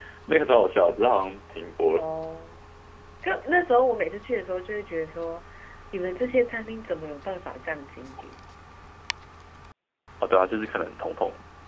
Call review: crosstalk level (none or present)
none